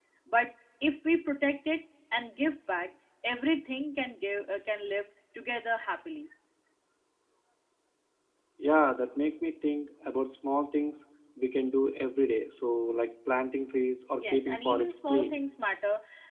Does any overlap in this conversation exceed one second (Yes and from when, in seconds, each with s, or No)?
Yes, from 14.2 s